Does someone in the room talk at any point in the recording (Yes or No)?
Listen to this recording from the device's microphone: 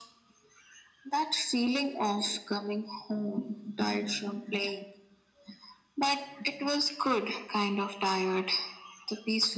No